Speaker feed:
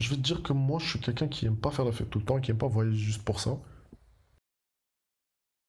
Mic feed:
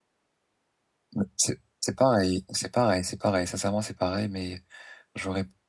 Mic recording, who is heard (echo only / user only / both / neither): user only